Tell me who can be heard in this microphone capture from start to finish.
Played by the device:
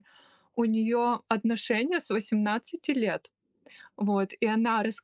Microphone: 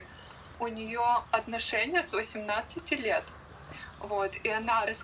echo only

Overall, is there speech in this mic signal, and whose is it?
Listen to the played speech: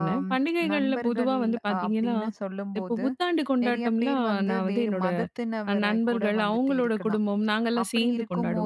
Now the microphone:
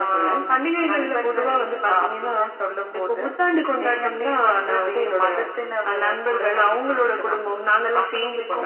echo only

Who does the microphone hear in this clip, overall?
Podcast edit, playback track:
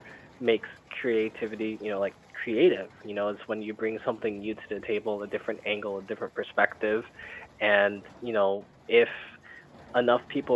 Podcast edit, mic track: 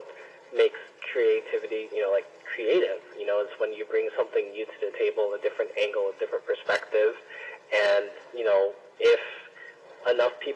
echo only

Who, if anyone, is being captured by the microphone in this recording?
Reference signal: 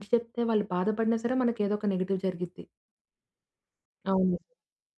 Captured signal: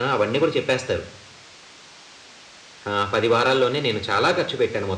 user only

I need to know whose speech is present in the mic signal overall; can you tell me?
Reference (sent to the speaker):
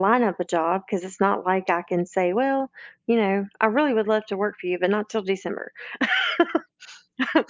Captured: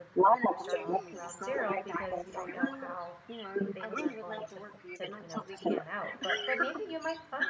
both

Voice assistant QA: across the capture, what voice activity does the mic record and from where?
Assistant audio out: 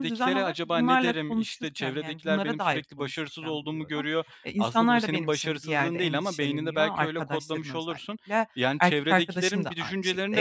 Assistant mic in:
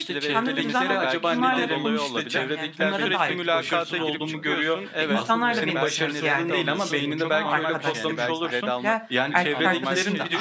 both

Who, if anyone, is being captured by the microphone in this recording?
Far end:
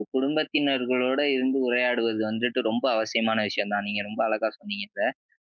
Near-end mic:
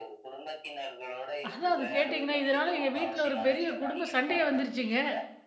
both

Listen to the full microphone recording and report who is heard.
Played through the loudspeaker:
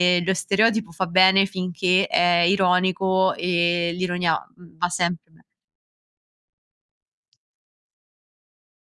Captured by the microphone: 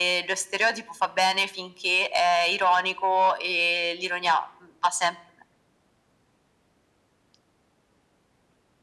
echo only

